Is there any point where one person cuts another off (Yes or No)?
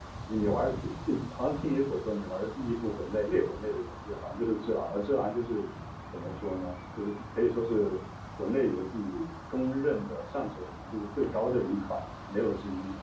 No